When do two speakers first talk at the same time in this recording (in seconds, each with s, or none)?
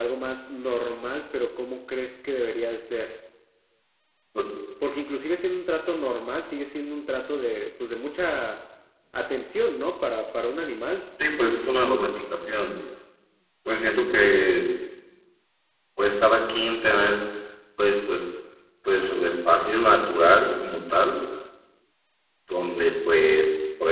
none